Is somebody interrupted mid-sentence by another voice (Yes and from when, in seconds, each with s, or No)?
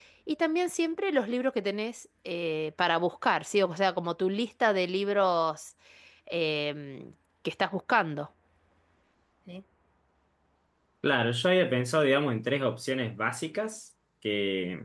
No